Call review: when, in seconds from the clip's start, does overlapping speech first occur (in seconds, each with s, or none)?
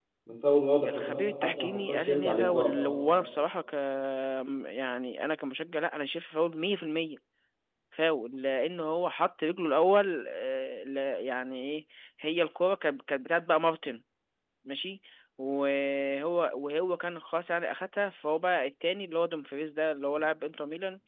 0.9 s